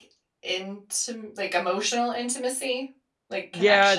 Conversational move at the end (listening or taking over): taking over